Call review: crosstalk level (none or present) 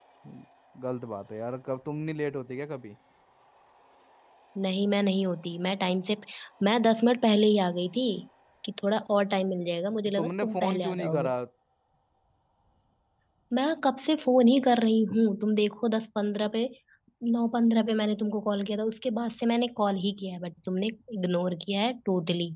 present